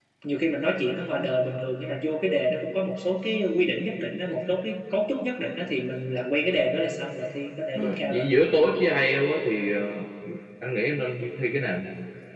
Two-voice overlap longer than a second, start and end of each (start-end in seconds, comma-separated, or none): none